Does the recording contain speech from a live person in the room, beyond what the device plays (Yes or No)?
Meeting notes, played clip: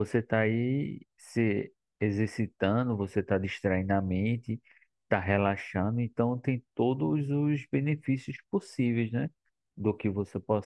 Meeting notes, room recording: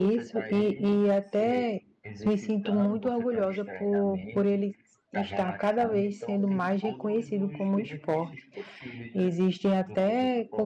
Yes